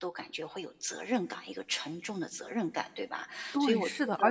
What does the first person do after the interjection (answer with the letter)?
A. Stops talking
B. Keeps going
A